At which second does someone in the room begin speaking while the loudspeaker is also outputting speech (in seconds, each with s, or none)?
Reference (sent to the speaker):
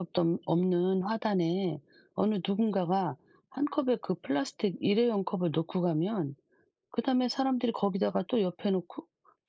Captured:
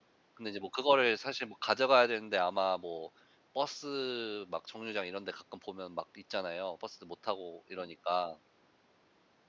0.3 s